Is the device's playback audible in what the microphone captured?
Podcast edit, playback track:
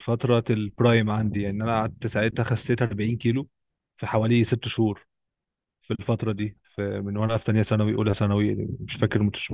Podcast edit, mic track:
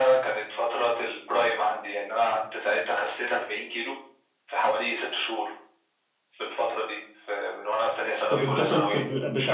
Yes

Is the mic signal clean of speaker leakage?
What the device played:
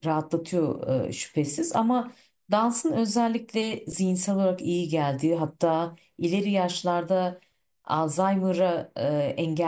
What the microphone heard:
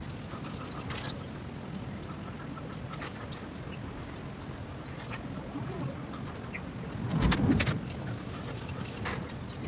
Yes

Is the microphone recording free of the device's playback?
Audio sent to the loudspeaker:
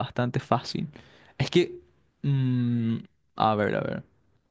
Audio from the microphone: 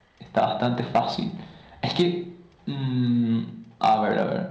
No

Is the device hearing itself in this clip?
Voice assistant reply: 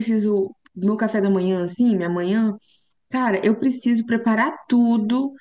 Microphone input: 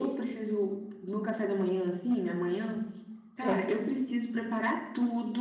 Yes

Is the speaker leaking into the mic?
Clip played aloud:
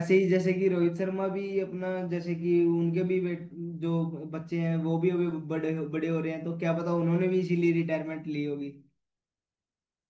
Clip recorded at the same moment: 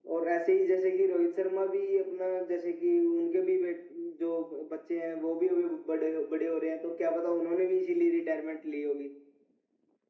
Yes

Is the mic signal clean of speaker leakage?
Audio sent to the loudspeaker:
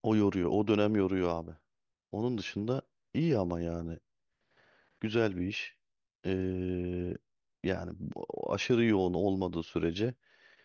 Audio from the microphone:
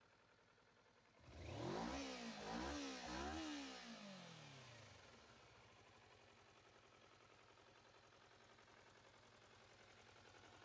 Yes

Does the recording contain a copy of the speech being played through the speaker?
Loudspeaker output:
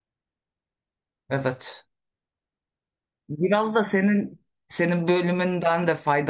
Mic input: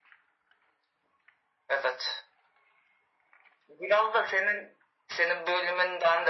Yes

